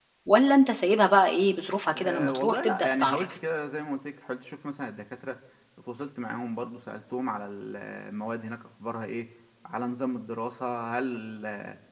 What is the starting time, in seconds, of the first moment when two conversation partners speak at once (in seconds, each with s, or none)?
1.9 s